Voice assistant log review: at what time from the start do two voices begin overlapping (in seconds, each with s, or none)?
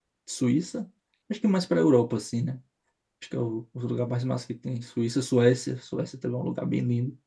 none